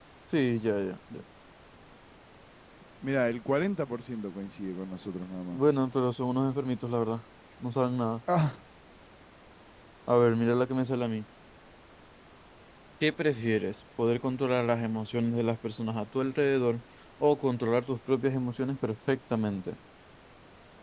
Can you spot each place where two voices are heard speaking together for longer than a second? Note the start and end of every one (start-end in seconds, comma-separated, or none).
none